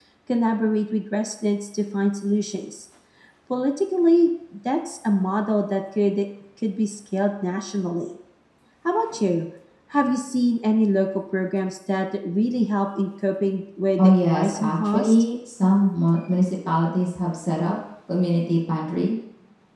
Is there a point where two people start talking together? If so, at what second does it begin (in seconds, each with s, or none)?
14.0 s